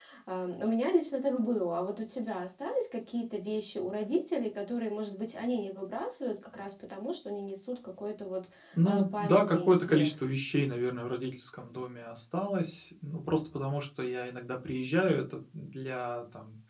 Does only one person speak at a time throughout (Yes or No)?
No